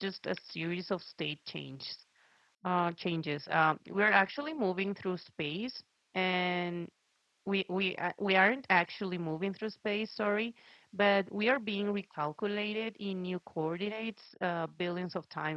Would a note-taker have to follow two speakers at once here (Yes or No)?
No